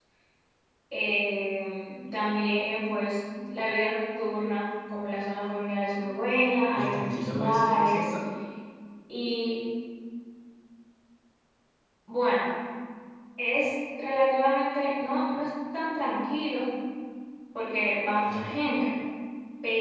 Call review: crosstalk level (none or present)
present